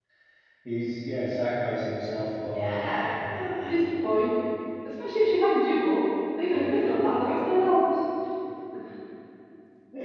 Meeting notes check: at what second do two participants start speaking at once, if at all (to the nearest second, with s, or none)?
3 s